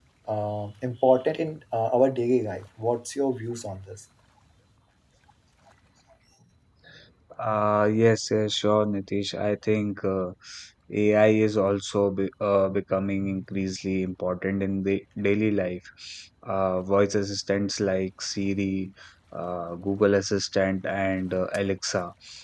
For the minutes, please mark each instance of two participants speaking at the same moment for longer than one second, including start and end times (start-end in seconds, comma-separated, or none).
none